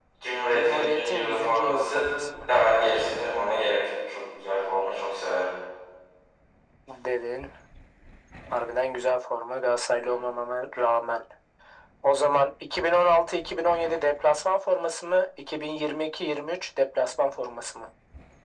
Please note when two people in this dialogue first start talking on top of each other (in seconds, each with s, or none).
0.5 s